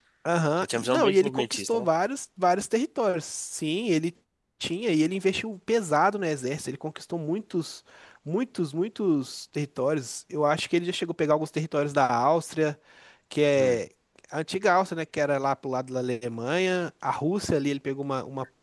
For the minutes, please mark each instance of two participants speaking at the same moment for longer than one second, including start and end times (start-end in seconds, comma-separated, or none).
0.6-1.9